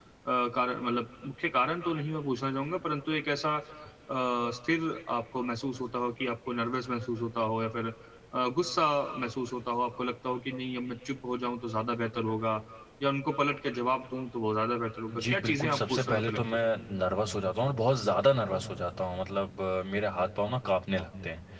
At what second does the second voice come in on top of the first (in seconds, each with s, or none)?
15.1 s